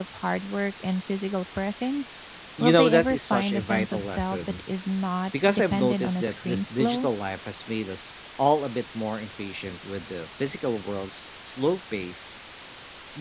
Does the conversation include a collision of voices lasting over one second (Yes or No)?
Yes